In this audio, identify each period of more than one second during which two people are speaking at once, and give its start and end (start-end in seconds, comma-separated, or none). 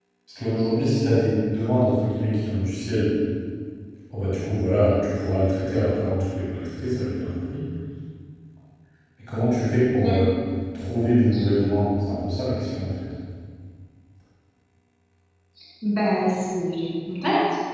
none